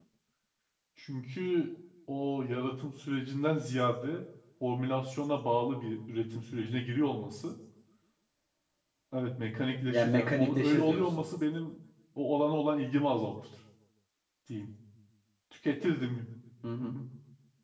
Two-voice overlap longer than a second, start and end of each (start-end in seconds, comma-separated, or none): 9.8-11.2